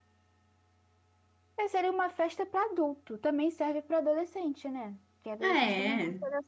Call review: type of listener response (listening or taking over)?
listening